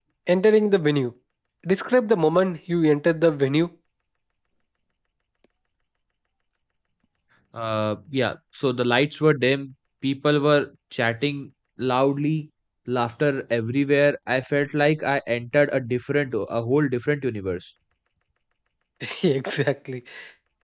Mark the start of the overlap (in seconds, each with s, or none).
none